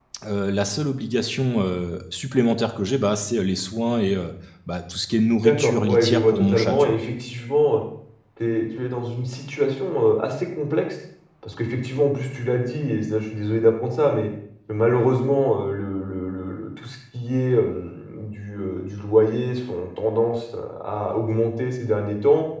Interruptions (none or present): present